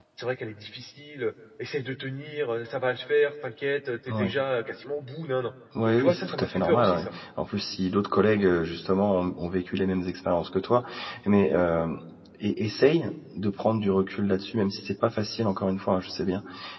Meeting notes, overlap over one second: present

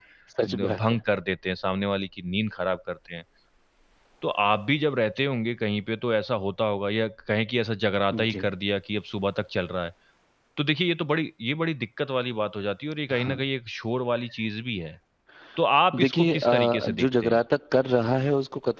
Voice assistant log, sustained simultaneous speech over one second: present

